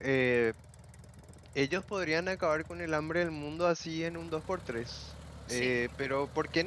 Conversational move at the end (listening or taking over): listening